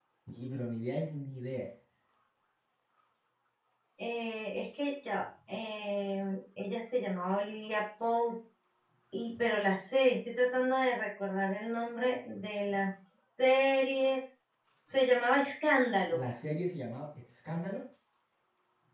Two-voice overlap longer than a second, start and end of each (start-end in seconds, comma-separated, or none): none